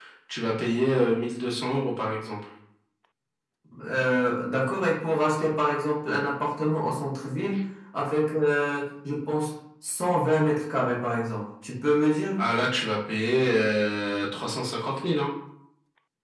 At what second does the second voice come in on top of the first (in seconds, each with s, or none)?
none